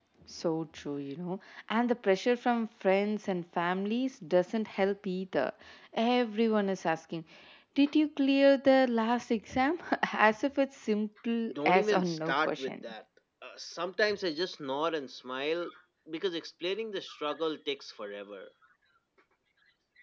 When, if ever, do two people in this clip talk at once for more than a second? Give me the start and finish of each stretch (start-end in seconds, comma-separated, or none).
11.5-12.8